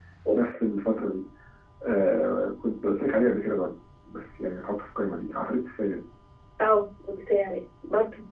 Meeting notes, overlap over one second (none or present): none